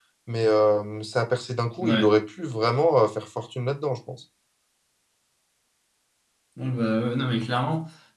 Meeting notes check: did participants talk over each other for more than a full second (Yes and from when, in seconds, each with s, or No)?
No